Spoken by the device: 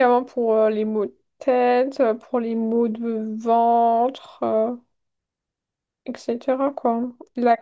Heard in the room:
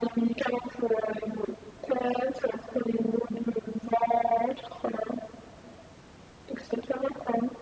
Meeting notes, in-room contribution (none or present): none